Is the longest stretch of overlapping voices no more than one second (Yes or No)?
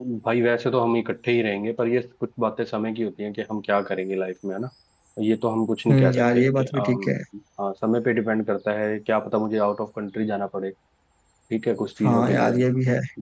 No